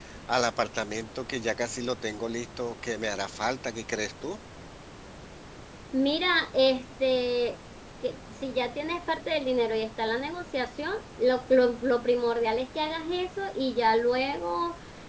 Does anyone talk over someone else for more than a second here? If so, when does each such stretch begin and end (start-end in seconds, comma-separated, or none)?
none